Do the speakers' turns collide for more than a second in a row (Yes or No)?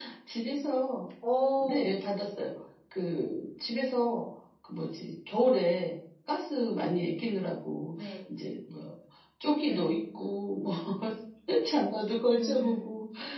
No